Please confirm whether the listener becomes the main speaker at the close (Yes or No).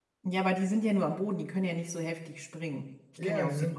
Yes